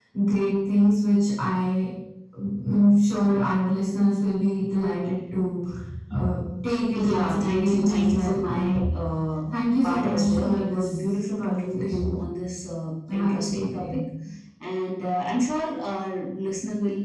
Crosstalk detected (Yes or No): Yes